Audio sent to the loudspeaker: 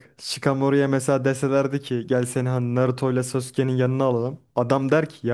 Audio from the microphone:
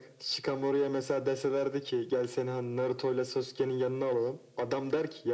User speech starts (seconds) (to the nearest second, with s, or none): none